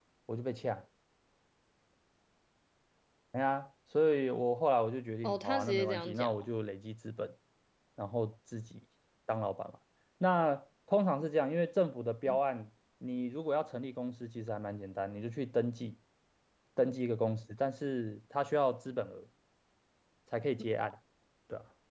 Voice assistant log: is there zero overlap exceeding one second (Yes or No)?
No